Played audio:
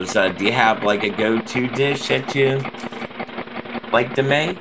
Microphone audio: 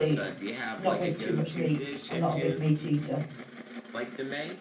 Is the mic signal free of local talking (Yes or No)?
No